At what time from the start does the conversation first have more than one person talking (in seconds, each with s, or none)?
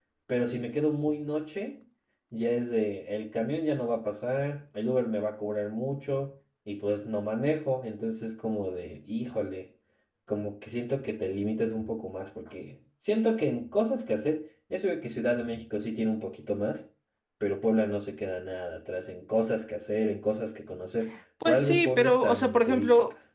21.4 s